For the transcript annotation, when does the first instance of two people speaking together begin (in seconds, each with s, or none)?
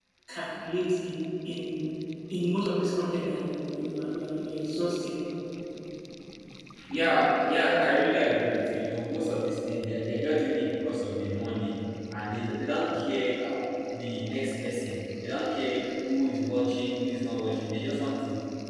none